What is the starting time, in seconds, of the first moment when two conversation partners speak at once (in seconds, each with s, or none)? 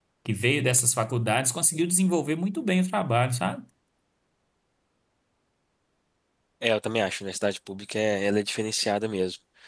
none